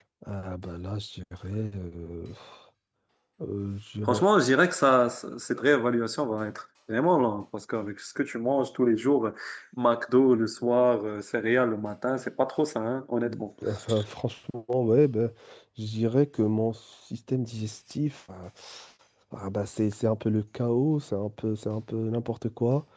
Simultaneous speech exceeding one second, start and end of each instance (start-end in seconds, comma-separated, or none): none